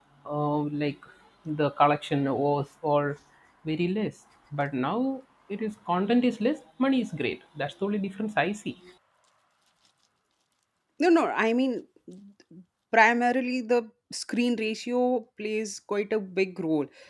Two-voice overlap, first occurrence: none

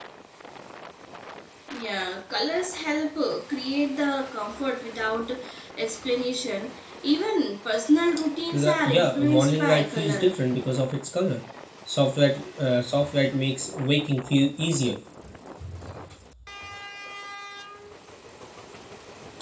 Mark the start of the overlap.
8.5 s

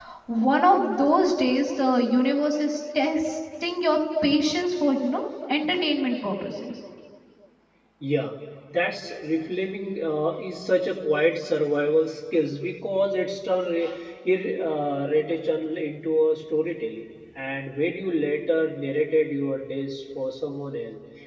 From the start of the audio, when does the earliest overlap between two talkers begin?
none

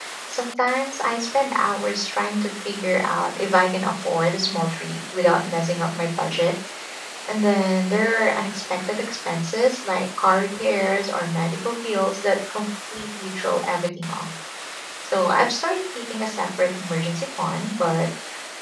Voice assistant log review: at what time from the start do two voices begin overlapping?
none

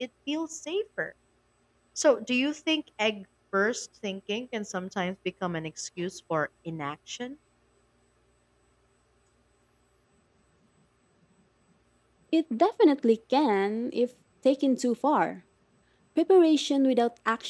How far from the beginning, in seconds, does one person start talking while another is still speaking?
none

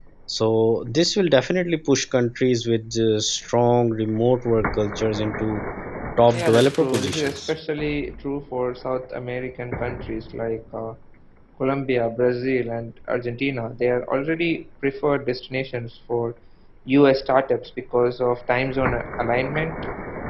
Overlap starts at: 6.3 s

